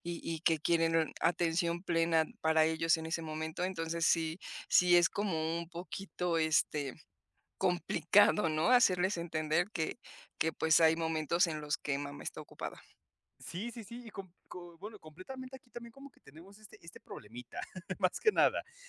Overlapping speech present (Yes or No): No